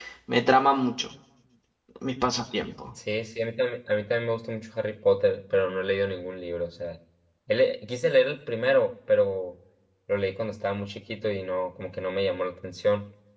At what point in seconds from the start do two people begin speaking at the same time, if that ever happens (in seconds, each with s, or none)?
none